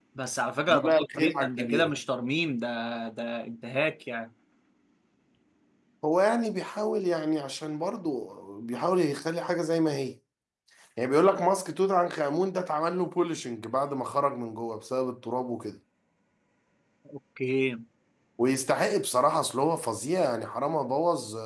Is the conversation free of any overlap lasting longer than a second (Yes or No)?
No